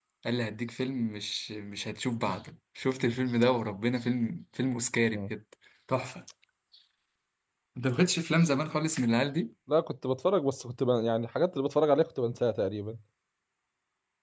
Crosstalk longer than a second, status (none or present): none